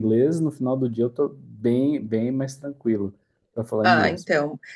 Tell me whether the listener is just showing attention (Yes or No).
No